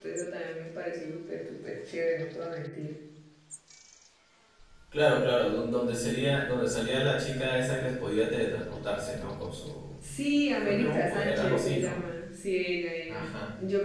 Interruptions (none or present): present